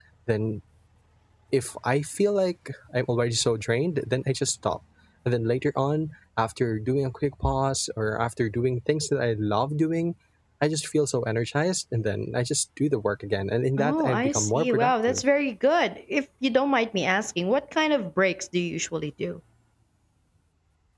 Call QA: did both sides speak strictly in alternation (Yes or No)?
No